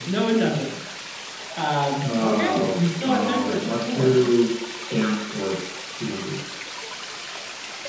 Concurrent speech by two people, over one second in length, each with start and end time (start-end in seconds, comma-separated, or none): 2.0-4.1